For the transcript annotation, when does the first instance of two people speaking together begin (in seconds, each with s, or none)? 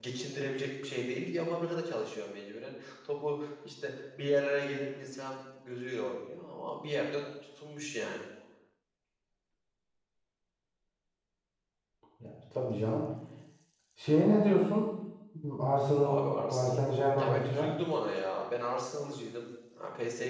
16.0 s